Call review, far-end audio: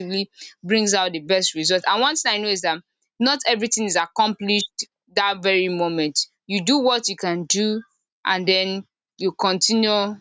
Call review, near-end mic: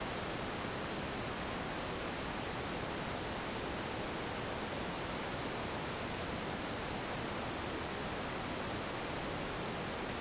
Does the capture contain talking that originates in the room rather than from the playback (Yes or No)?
No